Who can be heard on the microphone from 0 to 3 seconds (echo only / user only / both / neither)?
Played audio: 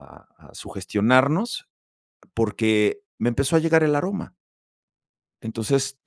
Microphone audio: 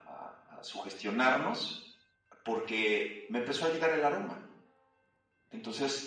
echo only